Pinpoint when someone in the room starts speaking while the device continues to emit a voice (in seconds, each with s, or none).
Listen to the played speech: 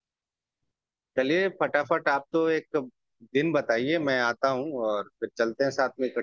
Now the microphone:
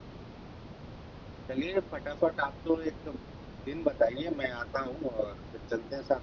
none